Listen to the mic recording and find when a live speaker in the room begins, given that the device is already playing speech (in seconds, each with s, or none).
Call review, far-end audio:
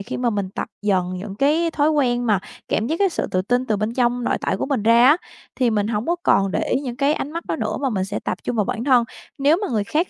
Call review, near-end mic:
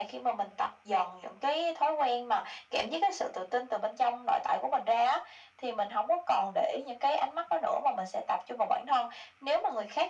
none